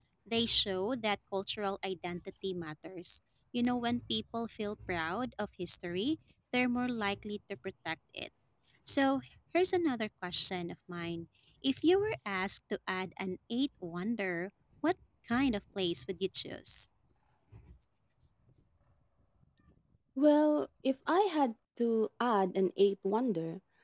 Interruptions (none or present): none